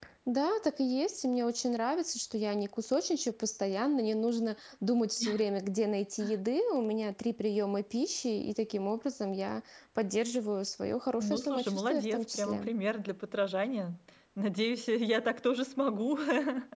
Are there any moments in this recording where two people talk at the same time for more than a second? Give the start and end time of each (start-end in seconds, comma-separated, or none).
11.2-12.7